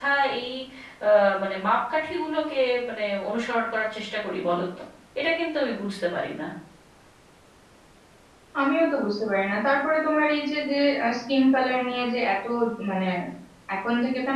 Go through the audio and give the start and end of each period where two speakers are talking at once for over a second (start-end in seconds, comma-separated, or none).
none